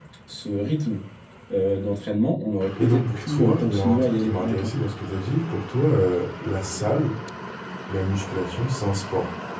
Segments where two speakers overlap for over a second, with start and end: 2.8-4.7

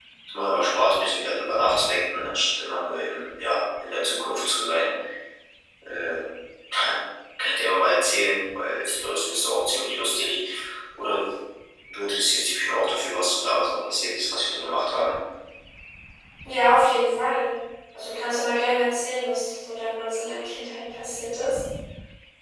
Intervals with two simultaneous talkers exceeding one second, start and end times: none

